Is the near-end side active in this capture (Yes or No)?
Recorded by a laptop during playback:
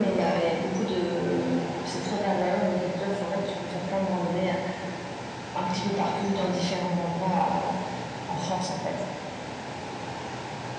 No